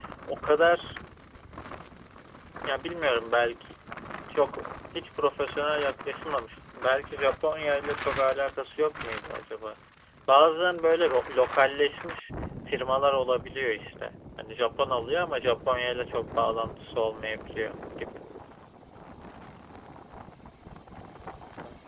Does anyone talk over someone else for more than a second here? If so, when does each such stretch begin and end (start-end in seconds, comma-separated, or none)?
none